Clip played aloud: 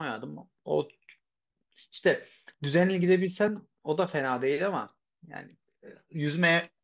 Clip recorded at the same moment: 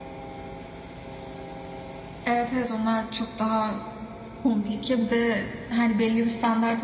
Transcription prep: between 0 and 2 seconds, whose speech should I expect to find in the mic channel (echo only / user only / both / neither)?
neither